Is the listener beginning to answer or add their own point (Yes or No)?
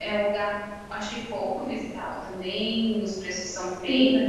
Yes